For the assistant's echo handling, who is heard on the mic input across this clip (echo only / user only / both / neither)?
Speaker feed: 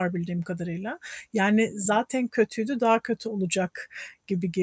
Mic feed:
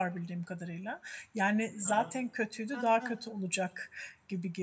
both